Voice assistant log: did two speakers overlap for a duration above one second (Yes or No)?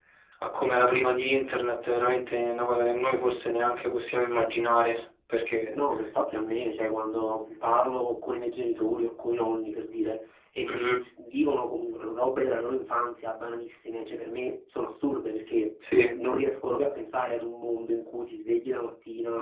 No